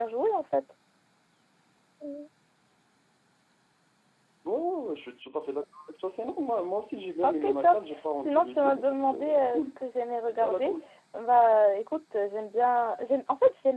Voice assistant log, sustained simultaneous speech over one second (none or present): present